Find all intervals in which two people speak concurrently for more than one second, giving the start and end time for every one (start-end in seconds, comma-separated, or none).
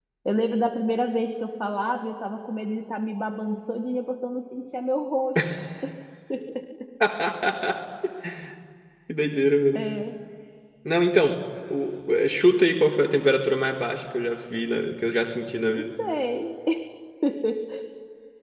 none